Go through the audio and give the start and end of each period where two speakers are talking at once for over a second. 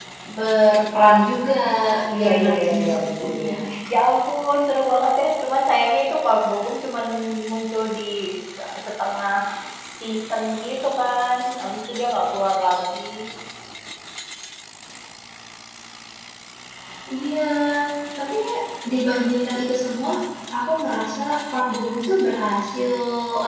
2.2-3.6

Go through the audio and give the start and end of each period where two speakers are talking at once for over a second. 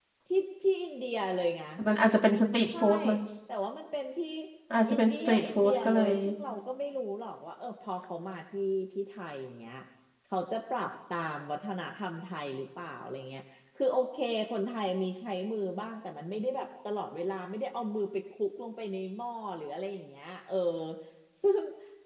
4.9-6.1

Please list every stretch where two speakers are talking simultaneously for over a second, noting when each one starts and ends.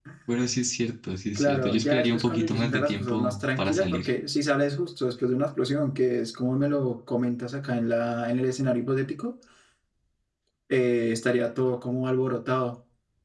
1.4-4.0

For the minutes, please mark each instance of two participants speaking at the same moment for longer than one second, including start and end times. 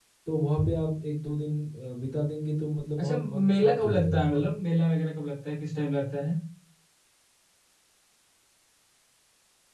3.0-4.5

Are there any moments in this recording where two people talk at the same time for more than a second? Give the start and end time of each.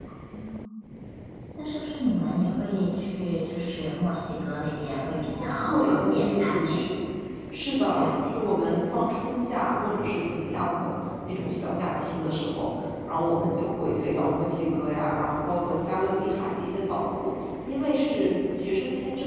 5.4-6.8

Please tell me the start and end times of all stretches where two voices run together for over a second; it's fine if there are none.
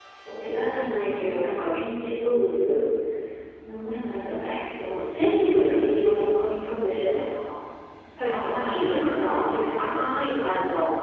8.3-9.8

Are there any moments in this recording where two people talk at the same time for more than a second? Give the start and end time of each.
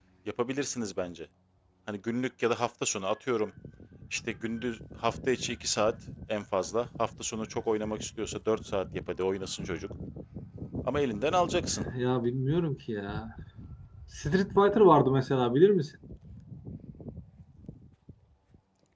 none

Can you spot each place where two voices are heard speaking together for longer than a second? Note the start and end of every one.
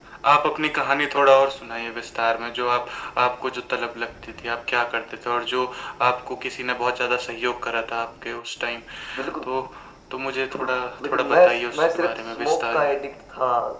11.0-12.9

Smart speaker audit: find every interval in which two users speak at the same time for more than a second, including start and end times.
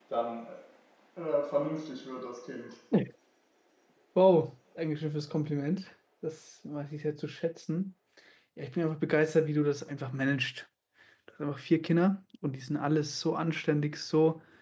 none

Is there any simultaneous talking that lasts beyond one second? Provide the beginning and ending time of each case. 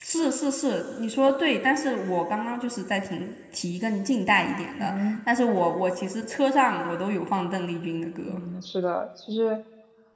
none

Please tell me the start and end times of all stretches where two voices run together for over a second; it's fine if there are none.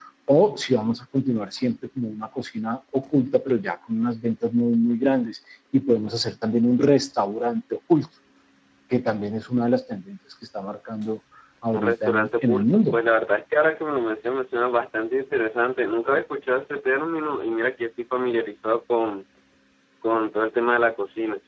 11.7-13.0

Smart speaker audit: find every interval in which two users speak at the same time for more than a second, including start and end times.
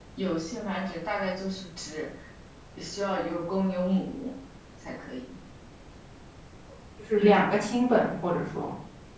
none

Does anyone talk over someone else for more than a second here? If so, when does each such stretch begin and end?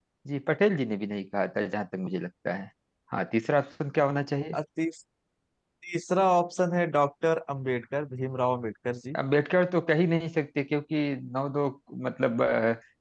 none

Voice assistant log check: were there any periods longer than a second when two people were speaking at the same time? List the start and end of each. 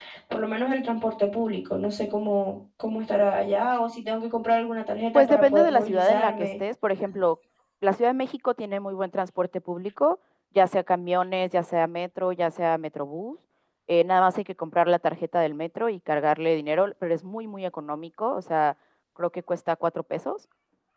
5.1-6.5

